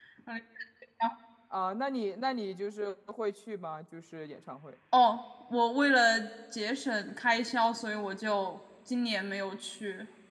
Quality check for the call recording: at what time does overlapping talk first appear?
none

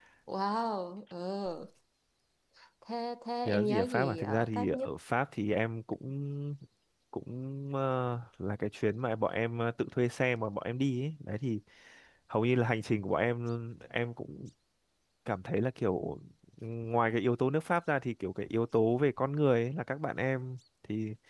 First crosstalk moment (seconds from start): 3 s

